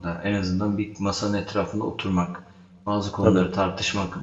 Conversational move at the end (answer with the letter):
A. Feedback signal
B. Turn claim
A